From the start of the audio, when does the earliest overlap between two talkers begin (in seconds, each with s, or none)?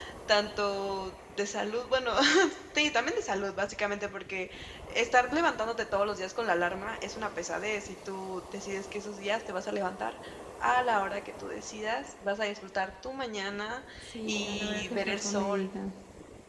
14.3 s